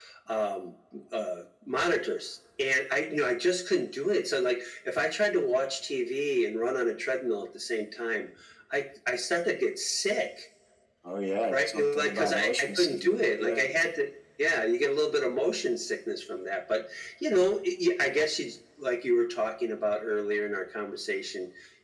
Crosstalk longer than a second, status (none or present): present